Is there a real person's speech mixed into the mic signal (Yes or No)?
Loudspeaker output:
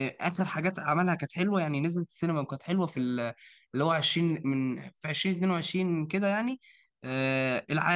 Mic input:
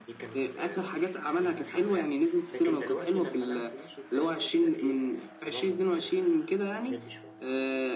Yes